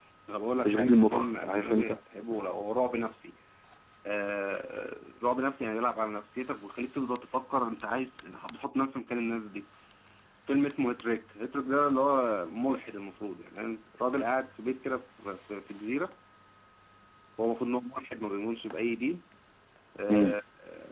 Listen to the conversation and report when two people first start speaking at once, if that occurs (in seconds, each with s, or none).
0.6 s